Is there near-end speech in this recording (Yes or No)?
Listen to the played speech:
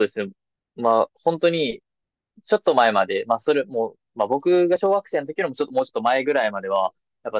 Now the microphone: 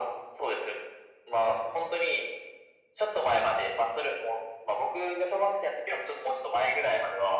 No